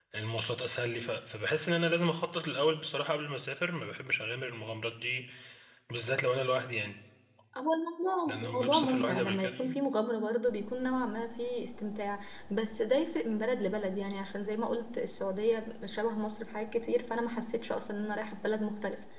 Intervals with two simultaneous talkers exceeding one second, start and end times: 8.3-9.8

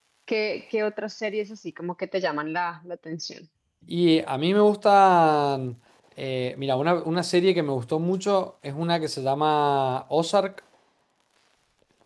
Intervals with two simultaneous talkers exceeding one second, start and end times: none

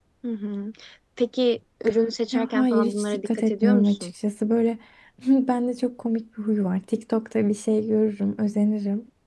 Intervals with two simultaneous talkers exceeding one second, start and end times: 2.3-4.1

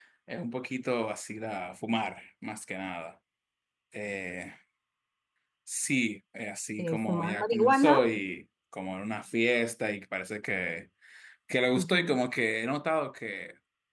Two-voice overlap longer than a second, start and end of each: 6.8-8.0

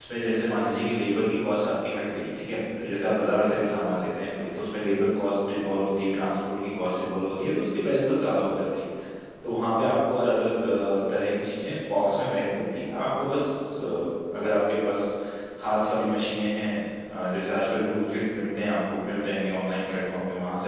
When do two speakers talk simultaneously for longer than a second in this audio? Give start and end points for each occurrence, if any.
none

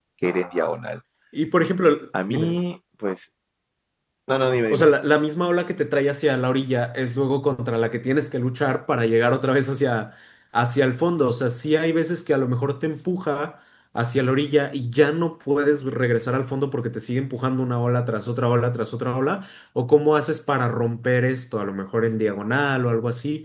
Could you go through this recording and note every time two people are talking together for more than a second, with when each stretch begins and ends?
none

